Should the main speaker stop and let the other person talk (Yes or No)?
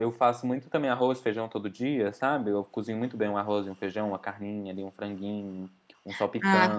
Yes